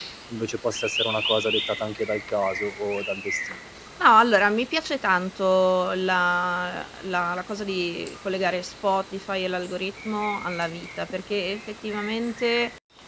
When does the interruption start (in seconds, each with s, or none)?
none